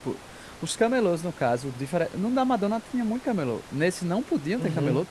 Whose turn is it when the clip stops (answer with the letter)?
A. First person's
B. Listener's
B